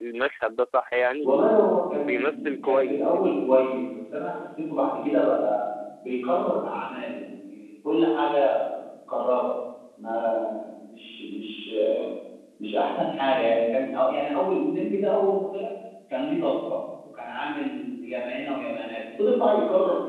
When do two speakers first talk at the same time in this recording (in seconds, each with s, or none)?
2.0 s